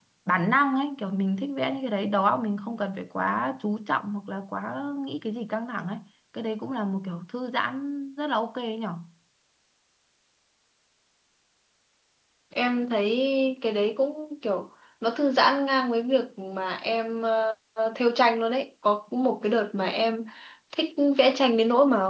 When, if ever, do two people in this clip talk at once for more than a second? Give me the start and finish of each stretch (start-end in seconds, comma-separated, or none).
none